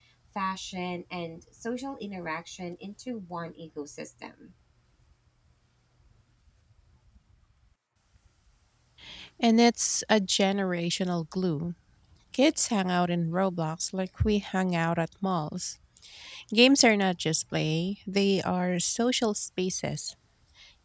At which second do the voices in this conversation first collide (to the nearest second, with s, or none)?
none